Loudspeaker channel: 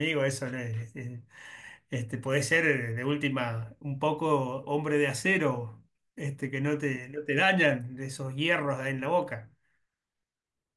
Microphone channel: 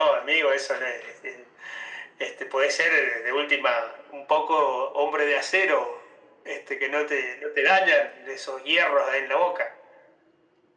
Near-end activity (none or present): none